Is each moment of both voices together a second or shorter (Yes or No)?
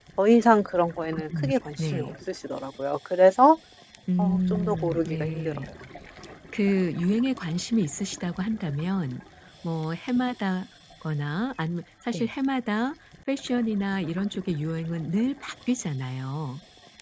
No